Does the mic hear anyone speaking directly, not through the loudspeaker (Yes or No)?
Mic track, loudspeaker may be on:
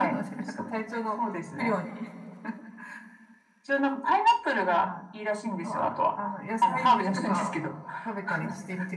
Yes